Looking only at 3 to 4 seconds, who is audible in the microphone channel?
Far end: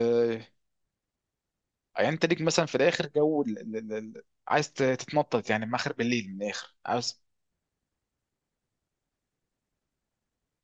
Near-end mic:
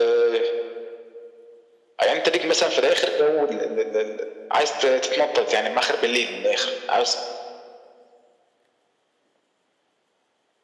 echo only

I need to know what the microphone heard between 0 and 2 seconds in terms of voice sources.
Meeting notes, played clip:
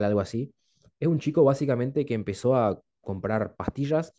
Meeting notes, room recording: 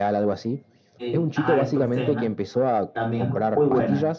both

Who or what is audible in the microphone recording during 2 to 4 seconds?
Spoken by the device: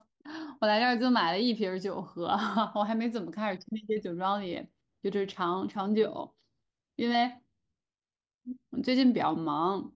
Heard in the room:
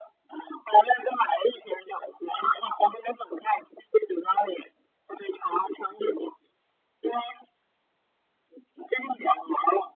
echo only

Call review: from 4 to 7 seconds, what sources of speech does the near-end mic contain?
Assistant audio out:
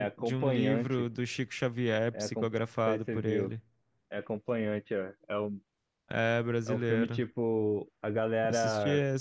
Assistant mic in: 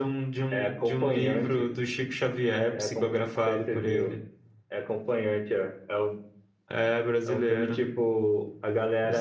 echo only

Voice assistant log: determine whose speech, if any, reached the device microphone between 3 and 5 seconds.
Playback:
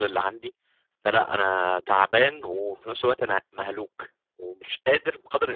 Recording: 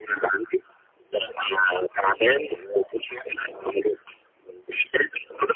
echo only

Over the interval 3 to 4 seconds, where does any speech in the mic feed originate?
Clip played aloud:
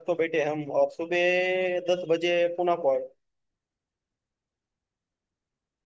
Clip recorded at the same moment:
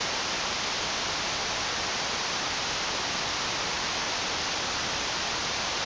neither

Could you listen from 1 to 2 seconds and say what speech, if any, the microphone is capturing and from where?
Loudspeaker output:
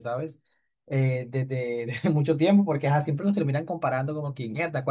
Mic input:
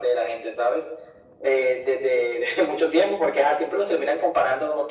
echo only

